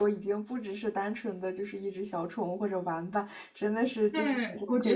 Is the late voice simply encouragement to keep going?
No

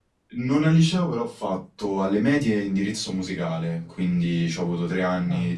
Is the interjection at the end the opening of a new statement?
No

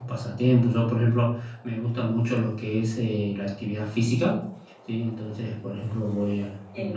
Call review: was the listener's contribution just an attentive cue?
Yes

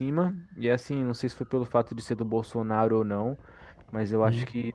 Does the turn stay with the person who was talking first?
Yes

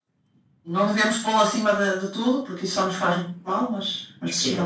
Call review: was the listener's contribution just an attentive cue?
No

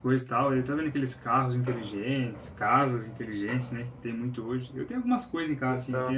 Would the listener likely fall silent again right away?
Yes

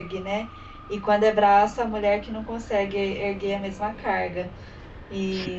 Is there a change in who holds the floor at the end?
No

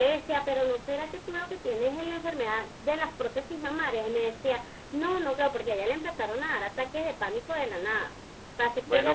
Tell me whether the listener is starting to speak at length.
No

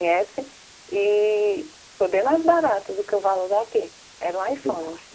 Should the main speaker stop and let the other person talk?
Yes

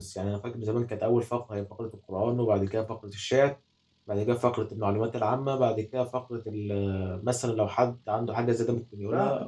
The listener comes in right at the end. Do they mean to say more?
Yes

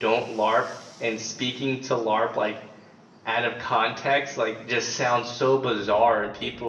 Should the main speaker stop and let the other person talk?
No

